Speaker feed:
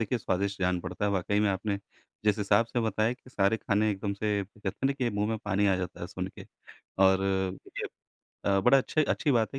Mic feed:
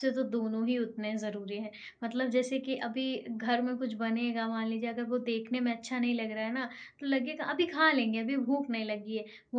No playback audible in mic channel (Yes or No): Yes